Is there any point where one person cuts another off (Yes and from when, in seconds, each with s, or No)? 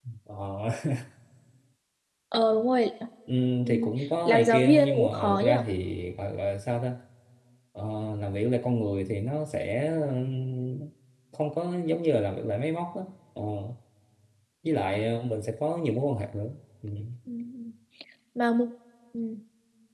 Yes, from 3.6 s